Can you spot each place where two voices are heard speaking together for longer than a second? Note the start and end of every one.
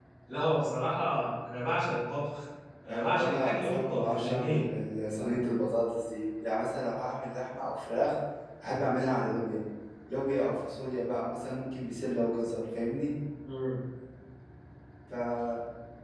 2.9-4.7

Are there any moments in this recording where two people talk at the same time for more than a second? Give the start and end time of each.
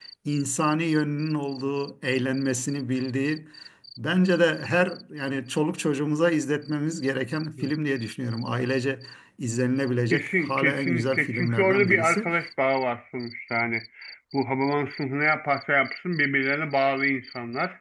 10.1-12.3

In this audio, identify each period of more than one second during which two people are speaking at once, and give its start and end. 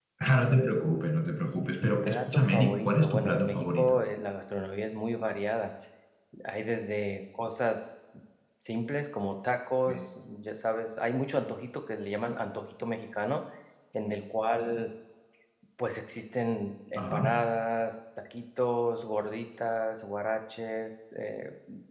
1.8-4.0

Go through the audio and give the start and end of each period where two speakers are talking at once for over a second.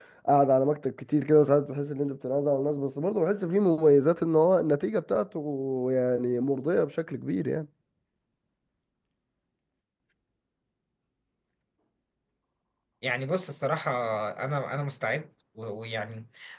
none

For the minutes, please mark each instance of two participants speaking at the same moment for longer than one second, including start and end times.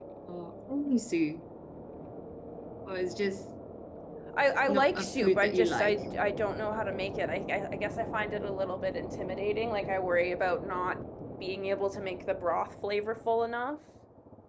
4.7-5.9

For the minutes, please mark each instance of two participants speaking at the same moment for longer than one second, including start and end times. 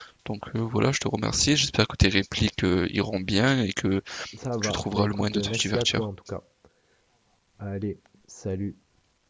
4.6-6.0

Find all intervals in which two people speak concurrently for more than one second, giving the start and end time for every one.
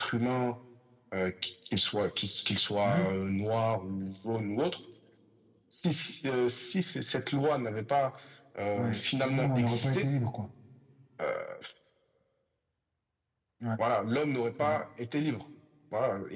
8.8-10.1

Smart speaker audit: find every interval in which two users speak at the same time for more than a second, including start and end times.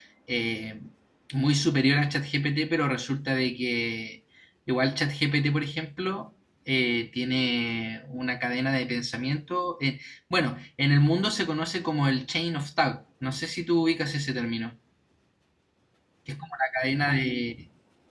none

